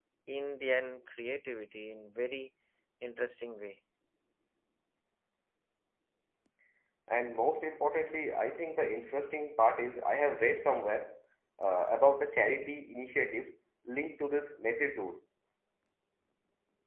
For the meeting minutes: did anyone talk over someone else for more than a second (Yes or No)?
No